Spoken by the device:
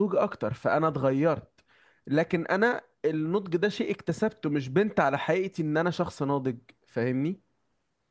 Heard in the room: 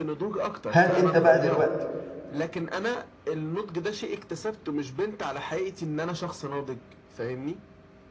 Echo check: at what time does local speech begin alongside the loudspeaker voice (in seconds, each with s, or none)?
0.7 s